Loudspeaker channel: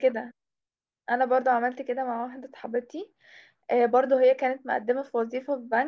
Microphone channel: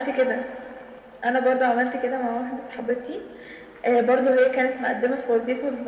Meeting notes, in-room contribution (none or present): none